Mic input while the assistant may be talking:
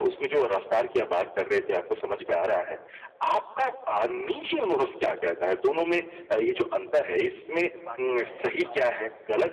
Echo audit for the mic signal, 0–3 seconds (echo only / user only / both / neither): echo only